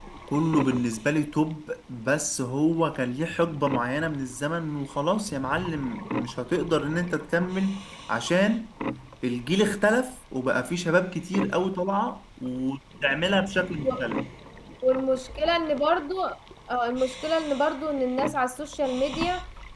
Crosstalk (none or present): none